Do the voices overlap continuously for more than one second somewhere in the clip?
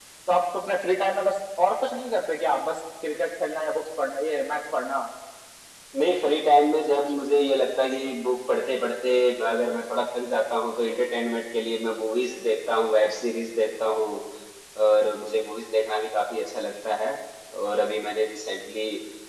No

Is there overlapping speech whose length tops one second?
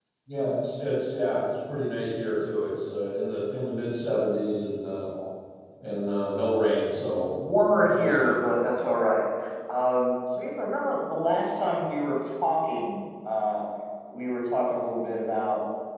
No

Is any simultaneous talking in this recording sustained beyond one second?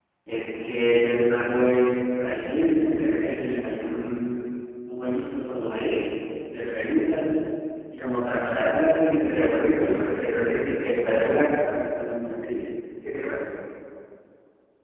Yes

